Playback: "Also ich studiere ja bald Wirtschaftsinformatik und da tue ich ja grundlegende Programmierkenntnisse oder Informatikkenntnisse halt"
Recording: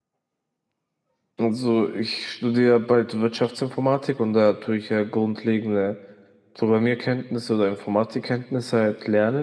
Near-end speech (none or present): none